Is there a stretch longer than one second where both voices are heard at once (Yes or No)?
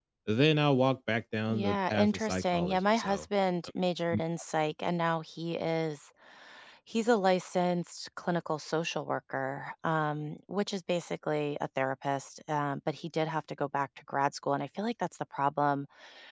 Yes